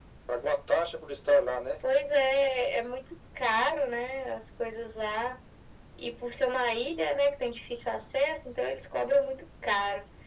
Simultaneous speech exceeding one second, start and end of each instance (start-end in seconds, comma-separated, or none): none